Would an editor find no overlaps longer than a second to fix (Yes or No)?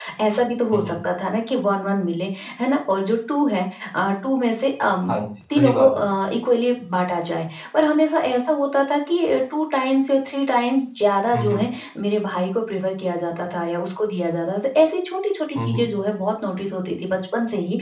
Yes